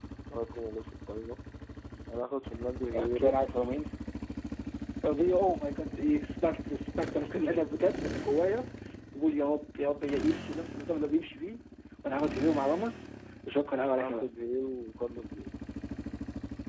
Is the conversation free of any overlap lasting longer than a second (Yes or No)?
Yes